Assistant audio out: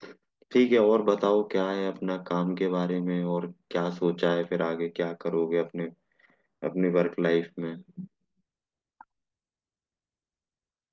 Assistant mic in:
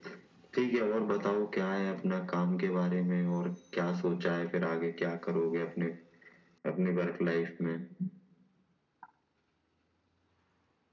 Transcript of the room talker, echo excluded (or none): none